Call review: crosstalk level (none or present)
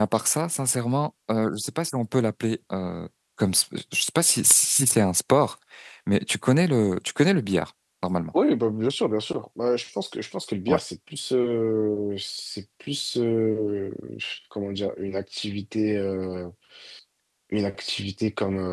none